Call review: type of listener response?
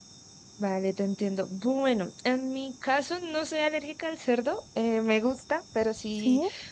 listening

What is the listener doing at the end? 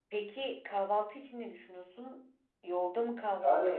taking over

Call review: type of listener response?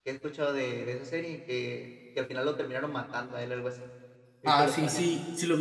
taking over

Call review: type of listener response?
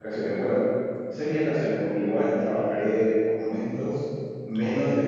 listening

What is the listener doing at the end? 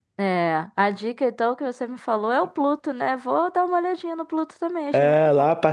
taking over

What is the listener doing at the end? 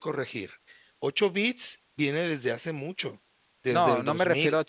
taking over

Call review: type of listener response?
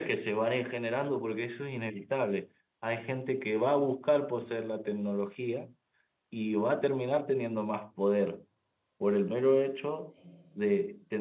listening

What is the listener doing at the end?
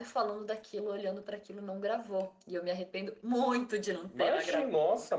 taking over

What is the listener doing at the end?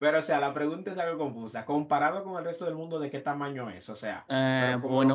taking over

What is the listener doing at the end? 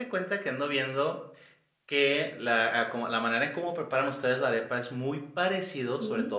listening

